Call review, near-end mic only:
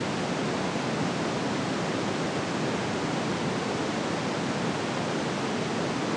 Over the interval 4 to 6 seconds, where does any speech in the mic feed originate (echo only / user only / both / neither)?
neither